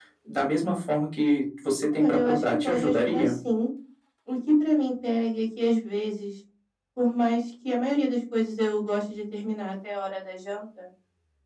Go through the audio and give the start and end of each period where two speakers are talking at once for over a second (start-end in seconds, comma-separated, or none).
1.9-3.4